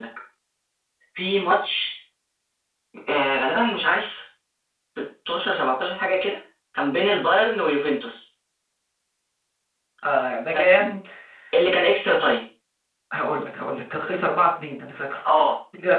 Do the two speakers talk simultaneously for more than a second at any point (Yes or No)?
No